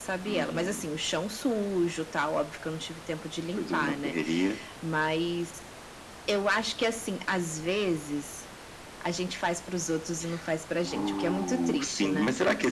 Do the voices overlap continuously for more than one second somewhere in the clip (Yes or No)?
Yes